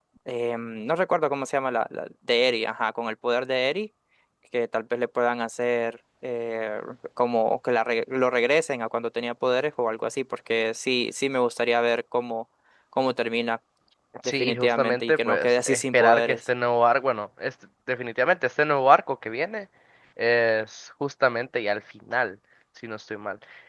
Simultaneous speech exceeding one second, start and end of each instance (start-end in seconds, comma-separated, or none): 14.4-16.4